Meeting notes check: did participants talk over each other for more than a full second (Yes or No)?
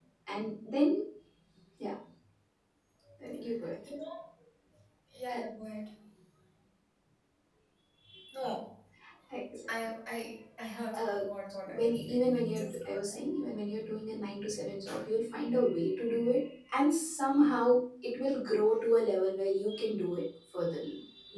Yes